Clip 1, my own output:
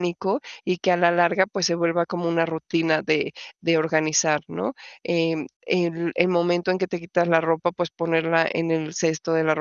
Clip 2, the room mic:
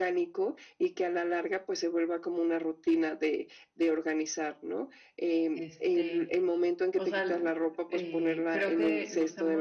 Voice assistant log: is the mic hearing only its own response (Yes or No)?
No